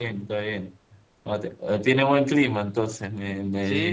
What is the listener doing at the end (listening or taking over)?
taking over